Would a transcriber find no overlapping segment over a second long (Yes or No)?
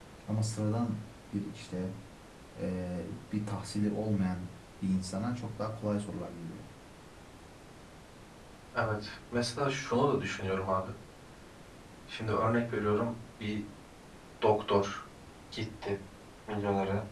Yes